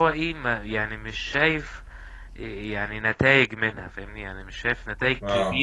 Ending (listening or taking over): listening